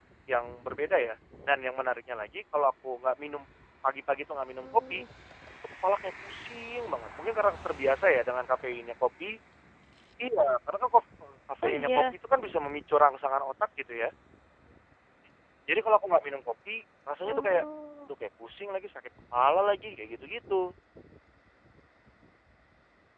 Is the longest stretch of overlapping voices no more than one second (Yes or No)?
Yes